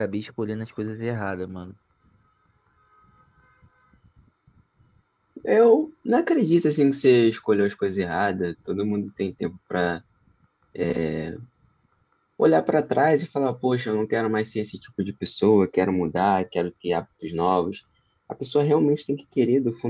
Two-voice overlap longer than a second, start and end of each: none

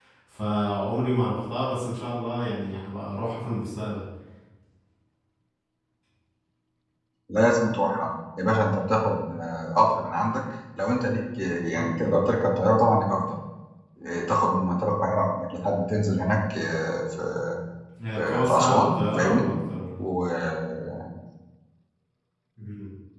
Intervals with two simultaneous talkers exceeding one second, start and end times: 18.2-19.5

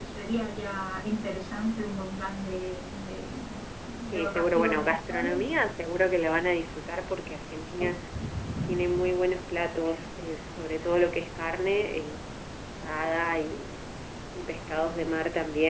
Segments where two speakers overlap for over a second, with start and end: 4.1-5.4

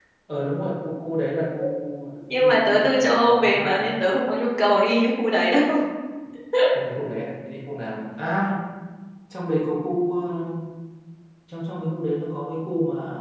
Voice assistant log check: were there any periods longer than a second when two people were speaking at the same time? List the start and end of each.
2.3-3.8

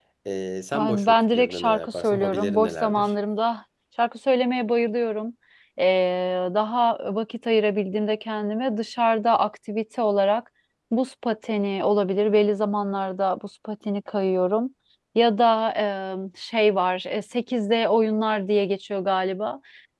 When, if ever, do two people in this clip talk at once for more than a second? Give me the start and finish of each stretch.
0.7-3.1

